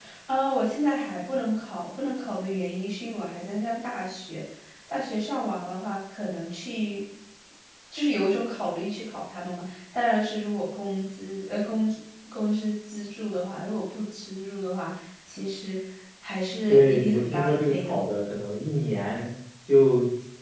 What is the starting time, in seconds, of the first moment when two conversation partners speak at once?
16.7 s

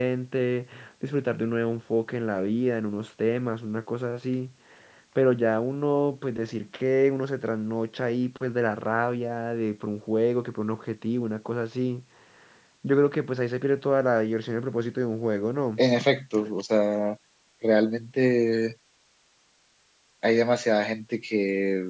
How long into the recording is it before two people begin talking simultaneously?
none

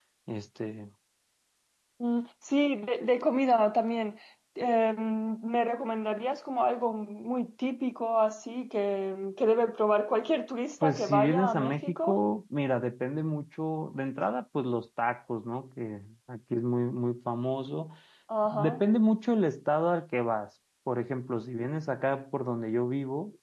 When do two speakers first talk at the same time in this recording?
10.8 s

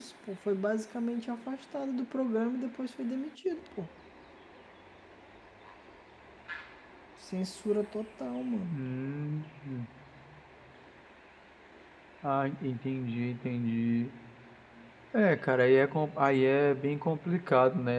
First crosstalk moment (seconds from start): none

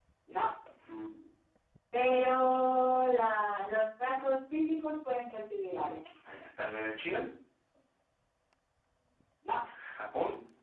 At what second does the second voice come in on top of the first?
none

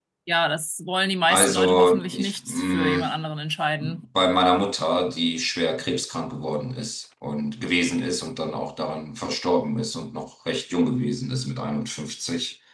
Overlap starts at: 1.3 s

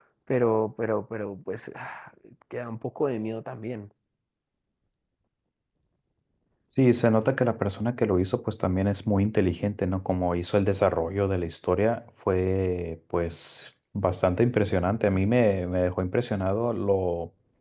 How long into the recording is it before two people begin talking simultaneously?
none

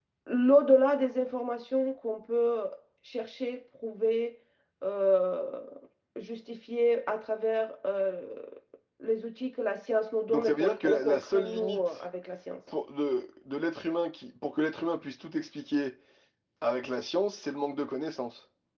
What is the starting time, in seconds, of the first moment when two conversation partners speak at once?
10.3 s

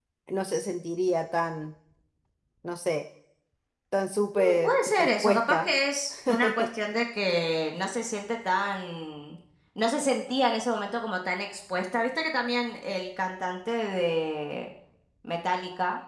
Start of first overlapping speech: 4.3 s

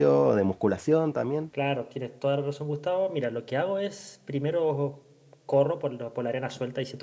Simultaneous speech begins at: none

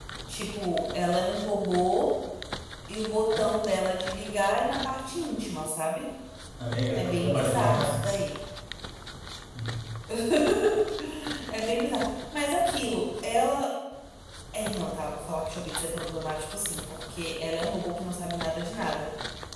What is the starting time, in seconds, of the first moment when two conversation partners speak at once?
7.0 s

